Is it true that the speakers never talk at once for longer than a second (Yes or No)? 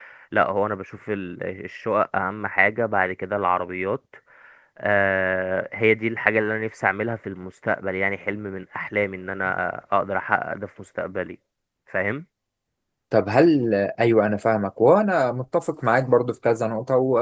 Yes